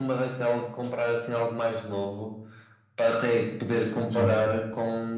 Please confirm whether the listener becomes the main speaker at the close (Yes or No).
No